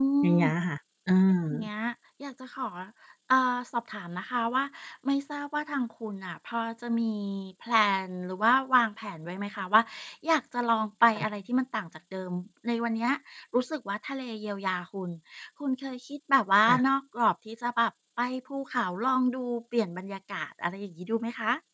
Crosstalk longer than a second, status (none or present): none